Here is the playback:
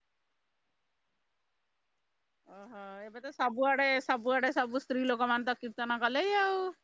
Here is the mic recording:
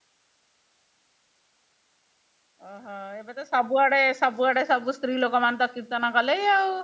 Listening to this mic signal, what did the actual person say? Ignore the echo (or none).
none